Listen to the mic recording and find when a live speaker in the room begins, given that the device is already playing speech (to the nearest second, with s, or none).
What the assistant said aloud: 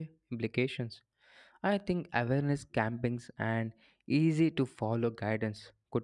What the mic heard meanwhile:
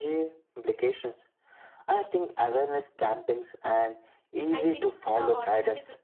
5 s